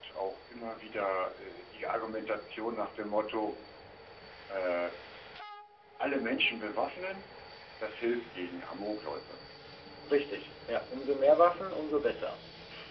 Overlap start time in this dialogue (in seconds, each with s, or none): none